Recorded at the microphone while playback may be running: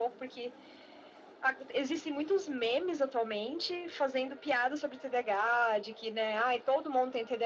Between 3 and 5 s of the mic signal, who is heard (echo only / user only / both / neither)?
echo only